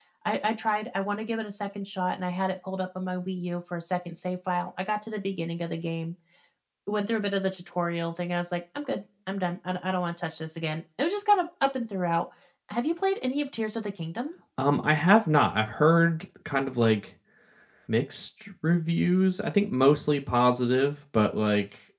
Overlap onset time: none

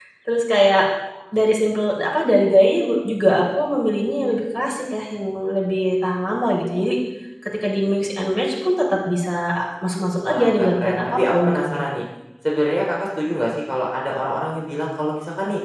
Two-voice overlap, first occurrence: 10.1 s

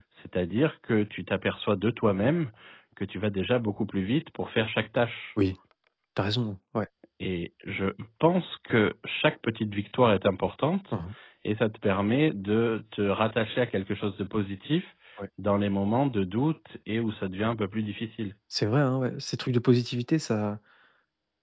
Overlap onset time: none

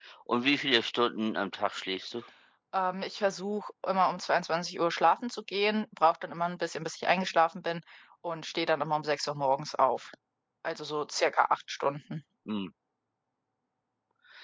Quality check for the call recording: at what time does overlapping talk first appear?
none

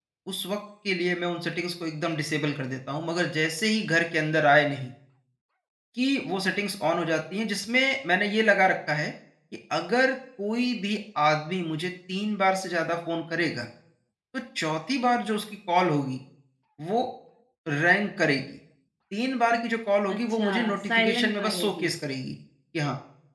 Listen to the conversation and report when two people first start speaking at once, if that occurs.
20.1 s

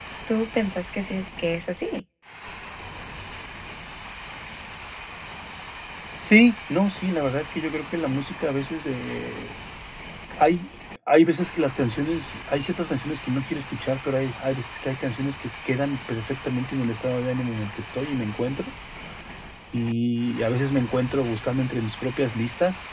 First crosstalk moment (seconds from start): none

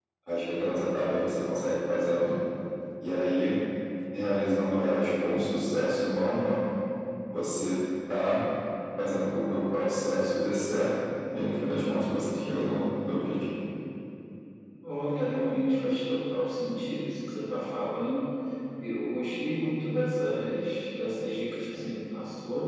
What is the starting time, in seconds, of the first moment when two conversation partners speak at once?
none

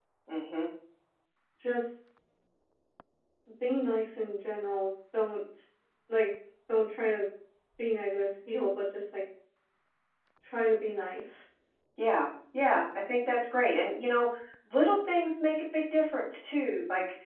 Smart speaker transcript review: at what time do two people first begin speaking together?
none

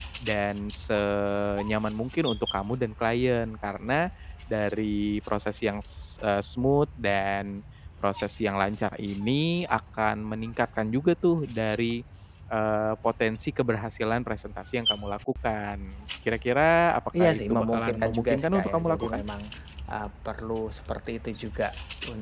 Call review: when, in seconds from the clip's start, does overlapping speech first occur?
17.1 s

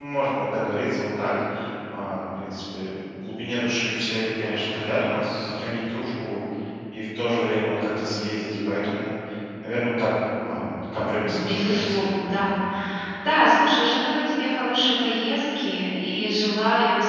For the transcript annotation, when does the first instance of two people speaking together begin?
11.3 s

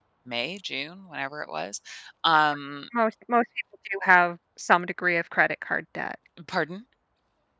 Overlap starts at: none

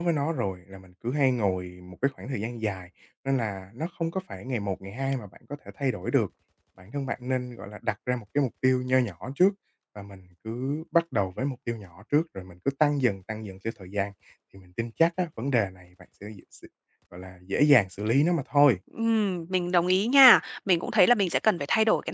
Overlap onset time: none

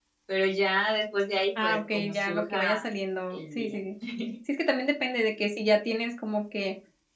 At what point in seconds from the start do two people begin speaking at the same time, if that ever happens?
1.6 s

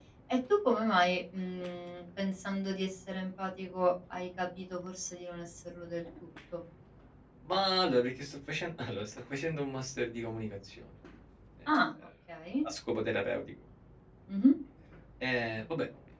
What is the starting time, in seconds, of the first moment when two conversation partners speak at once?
none

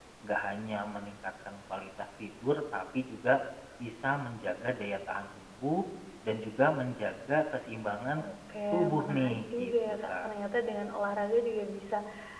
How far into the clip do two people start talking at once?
8.7 s

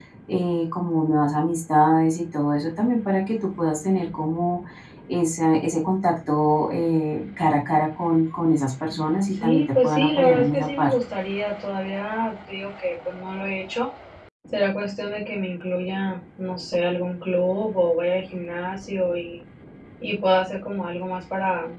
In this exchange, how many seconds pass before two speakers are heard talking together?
9.4 s

